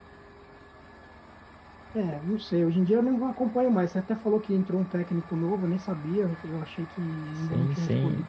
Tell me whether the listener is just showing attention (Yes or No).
No